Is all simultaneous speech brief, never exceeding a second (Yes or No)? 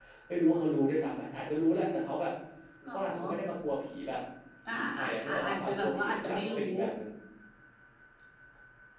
No